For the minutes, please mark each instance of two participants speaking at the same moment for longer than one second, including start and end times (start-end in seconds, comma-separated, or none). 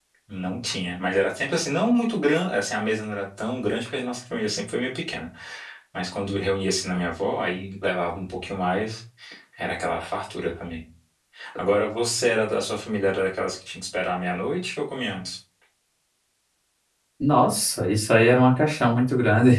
none